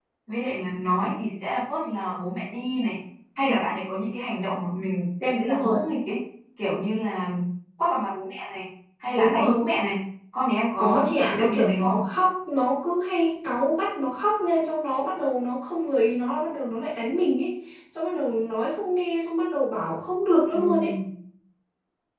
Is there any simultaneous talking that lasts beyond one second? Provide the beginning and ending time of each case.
10.8-12.0

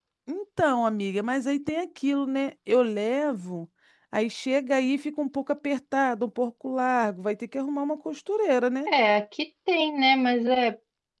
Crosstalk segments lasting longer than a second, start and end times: none

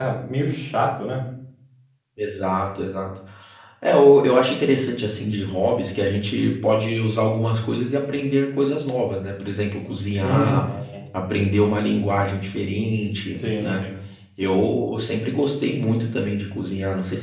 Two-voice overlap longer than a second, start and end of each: none

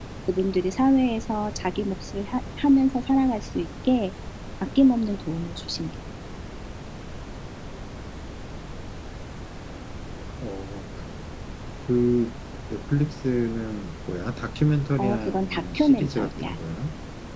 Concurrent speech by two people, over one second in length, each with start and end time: 15.0-16.5

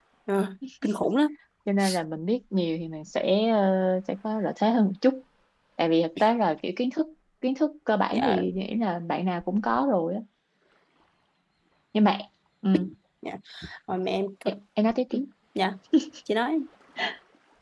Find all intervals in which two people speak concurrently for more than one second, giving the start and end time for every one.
none

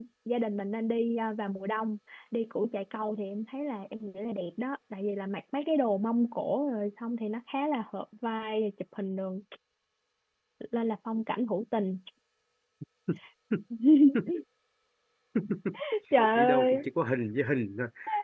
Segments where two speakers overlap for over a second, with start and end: none

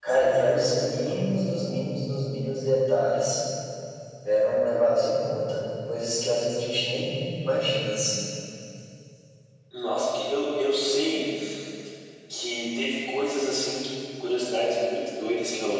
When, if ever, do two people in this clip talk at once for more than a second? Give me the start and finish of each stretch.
none

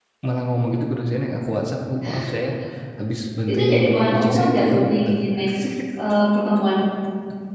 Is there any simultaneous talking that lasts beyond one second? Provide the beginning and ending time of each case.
3.5-4.9

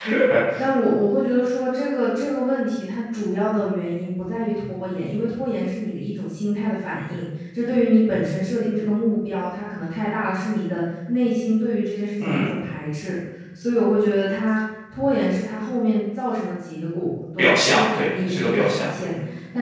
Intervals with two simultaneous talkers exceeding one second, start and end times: 17.4-18.9

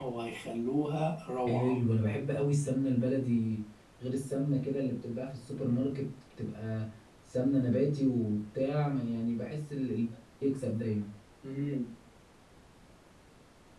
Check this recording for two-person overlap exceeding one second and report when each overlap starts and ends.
none

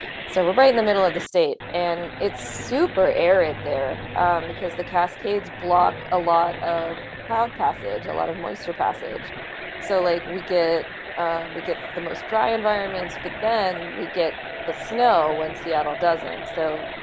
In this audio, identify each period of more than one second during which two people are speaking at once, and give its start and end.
none

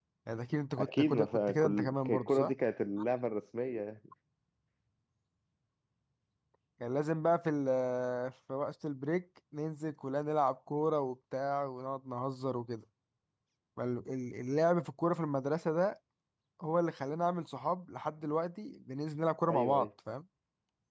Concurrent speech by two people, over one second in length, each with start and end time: 0.8-2.5

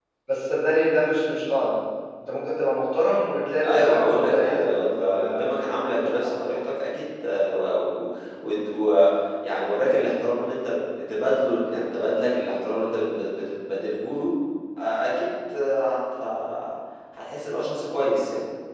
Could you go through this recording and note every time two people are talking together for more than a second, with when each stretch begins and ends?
3.6-5.4

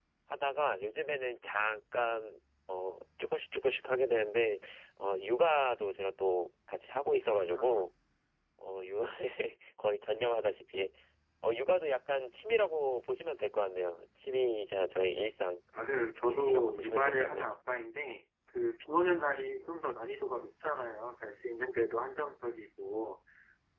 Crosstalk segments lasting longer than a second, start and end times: 16.2-17.4

